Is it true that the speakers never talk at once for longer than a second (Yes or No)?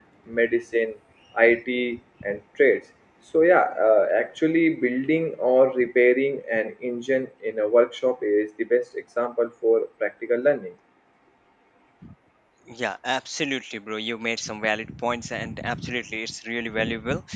Yes